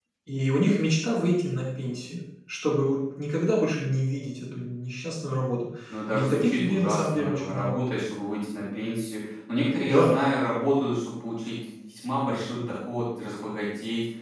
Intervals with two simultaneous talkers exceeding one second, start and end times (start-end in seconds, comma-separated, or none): 6.1-7.8